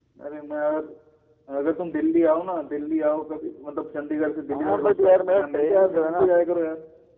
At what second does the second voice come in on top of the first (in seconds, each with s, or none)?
4.5 s